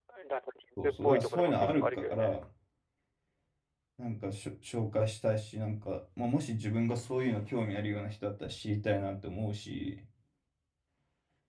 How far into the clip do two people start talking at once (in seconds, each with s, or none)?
0.8 s